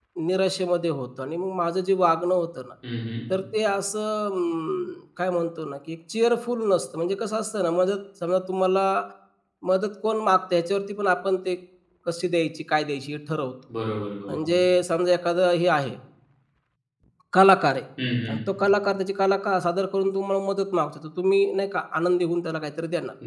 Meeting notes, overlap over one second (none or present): none